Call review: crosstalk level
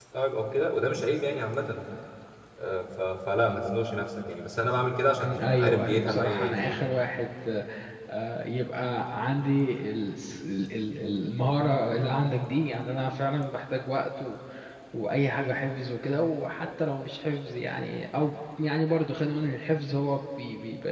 present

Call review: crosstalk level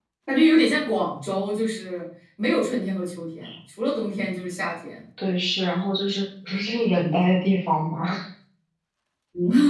none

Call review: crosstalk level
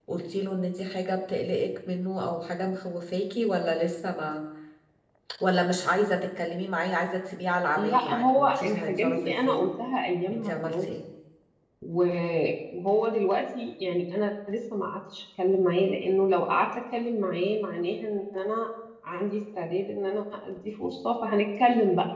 present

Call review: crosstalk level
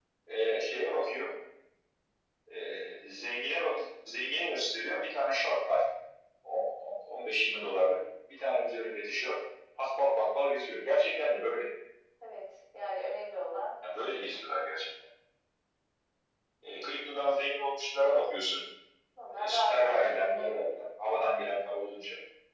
present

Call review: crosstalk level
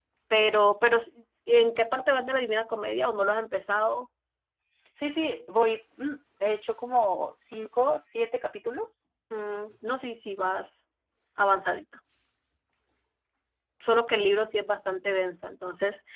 none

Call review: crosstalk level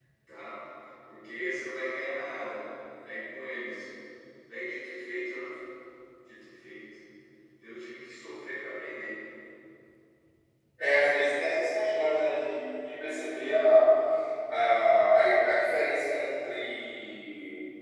none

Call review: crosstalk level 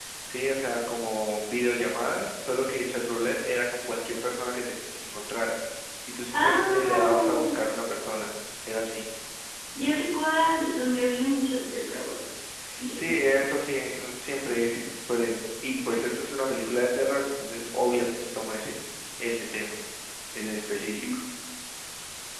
present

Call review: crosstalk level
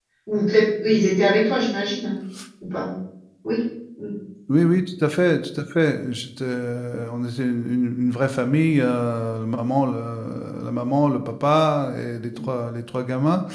none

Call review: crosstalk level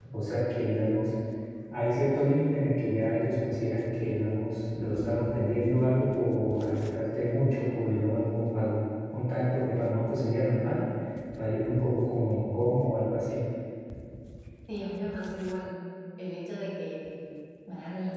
none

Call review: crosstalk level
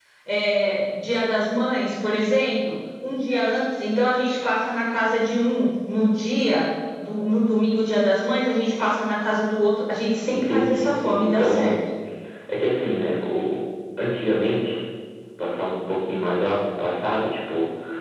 present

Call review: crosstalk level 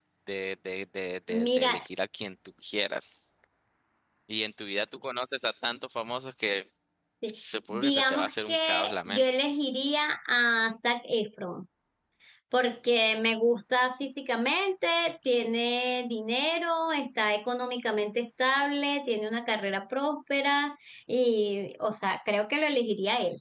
present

